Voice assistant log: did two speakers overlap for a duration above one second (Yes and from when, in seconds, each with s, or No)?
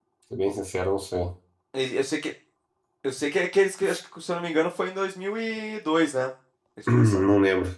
No